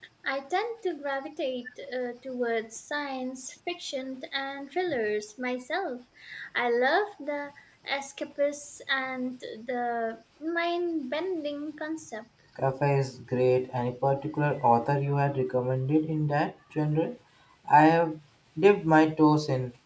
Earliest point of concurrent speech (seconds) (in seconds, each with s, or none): none